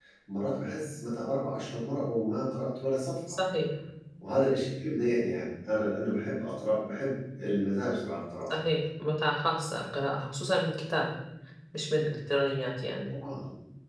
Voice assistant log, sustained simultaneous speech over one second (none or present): none